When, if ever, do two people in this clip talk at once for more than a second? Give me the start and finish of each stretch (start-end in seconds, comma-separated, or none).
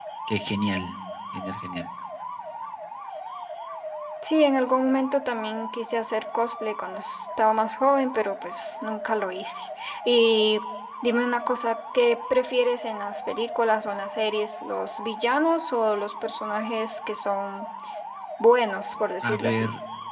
none